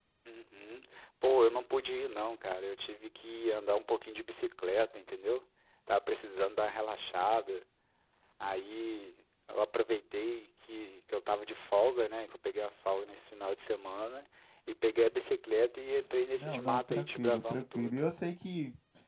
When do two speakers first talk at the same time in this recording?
16 s

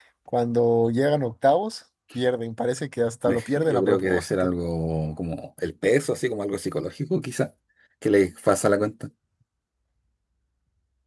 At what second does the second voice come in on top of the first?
3 s

